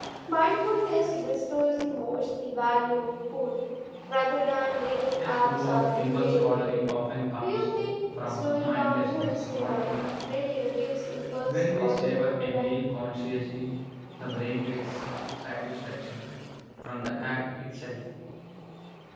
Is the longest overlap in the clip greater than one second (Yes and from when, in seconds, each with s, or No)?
Yes, from 5.1 s